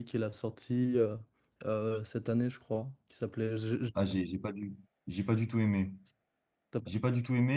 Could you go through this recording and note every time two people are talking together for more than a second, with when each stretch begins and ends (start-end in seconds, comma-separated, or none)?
none